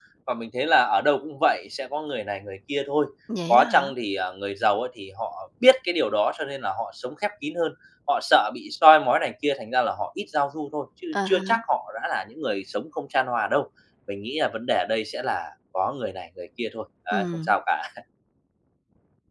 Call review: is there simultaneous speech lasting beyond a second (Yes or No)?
No